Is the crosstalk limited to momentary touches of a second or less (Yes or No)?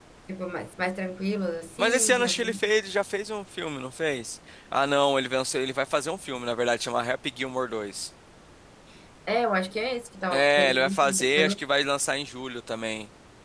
No